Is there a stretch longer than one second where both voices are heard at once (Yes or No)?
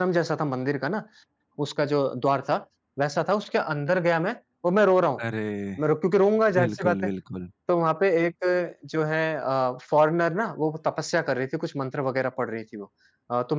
No